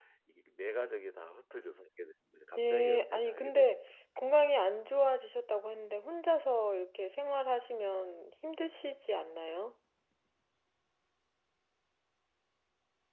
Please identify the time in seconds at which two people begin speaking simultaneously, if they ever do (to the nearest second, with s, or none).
3 s